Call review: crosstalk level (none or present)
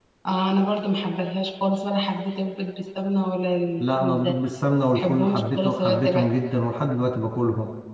present